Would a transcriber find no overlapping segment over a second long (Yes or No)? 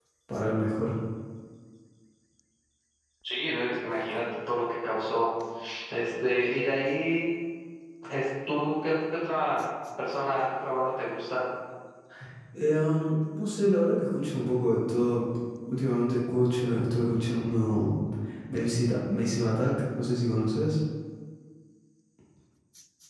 Yes